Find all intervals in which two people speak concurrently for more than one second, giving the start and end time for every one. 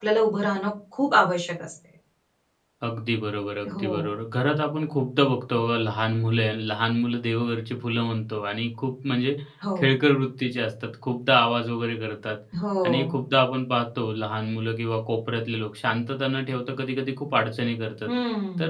none

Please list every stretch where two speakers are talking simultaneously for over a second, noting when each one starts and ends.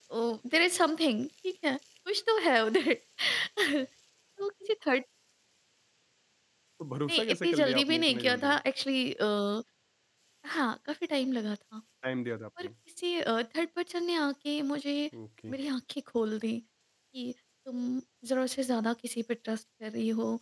7.1-8.6

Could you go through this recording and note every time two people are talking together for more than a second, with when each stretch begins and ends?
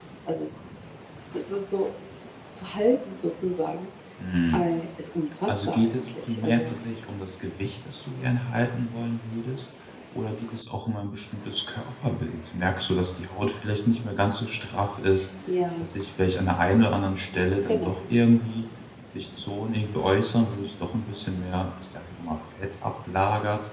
5.5-6.8

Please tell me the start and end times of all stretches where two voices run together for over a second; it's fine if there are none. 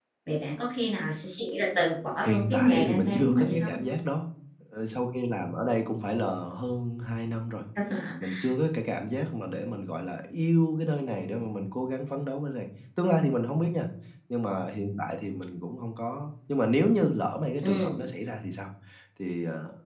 2.2-3.7

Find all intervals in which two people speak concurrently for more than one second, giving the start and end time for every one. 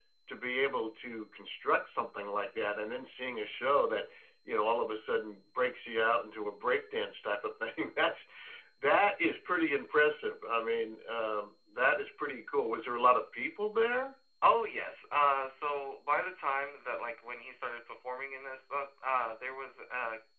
none

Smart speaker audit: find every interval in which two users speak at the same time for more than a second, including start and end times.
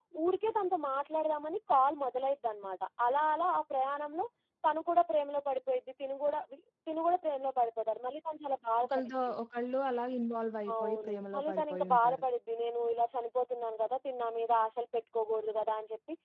10.7-12.2

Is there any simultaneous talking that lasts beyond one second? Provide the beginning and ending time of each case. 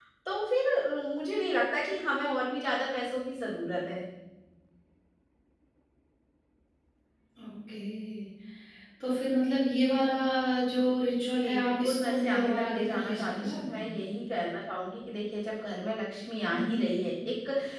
11.4-13.9

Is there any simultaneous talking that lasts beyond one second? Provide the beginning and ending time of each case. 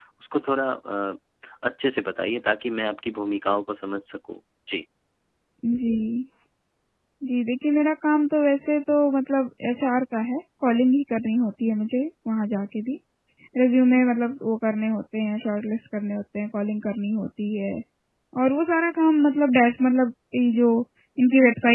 none

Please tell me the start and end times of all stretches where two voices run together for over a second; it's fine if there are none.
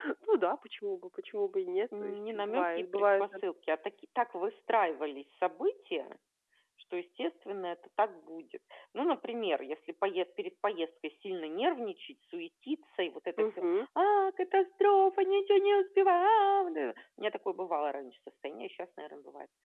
2.0-3.4

